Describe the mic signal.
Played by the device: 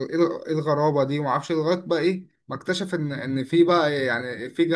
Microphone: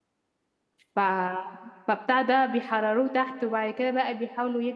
user only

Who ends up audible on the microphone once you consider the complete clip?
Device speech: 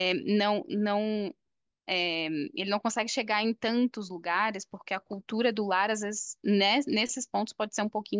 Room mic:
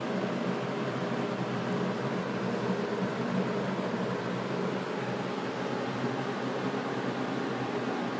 neither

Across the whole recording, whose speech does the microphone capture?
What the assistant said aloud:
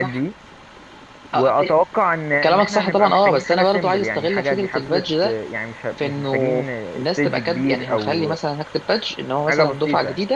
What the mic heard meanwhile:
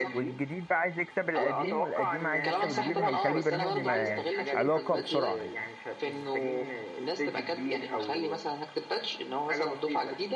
both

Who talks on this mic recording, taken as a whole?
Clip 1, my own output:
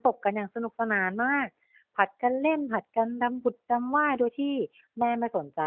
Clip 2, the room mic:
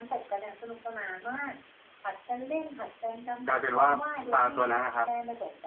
both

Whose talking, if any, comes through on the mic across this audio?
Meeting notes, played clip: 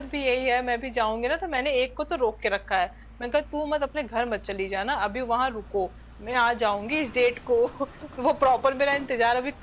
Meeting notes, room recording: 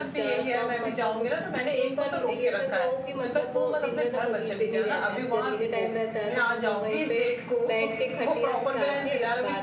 both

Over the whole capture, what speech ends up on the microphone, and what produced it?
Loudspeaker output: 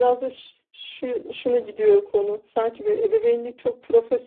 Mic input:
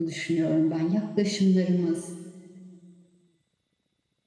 user only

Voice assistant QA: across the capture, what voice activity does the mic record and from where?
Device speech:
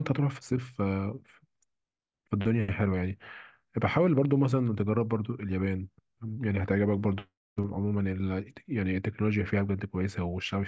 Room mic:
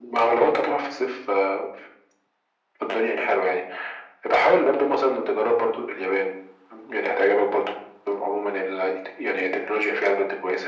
echo only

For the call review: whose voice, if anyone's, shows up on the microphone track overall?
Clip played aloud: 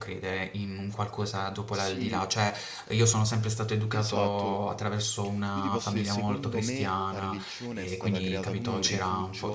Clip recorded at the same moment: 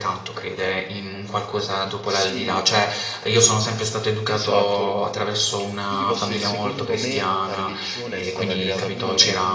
echo only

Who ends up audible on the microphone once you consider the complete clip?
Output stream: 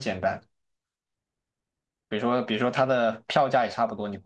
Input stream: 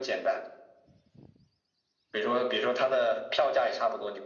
echo only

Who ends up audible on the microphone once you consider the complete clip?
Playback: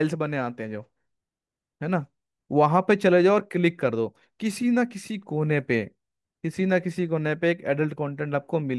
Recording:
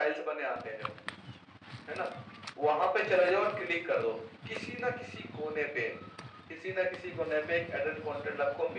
echo only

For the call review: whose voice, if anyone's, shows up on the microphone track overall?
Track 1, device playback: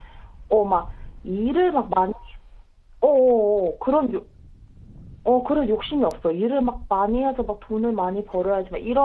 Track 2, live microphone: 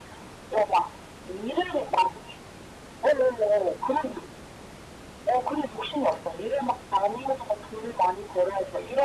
echo only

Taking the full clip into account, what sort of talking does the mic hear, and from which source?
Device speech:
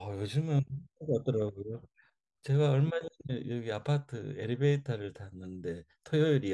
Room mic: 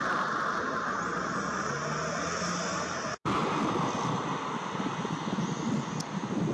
neither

